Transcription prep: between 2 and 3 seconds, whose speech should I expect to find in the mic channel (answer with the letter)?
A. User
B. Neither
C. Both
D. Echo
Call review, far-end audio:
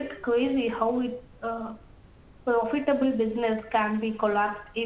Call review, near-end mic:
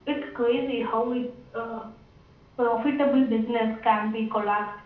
D